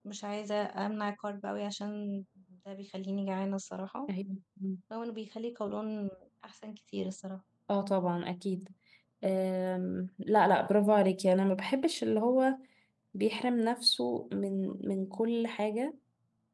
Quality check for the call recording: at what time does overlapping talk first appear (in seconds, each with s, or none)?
none